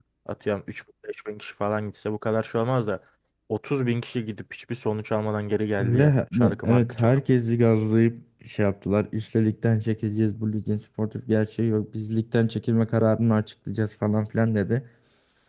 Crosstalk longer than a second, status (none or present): present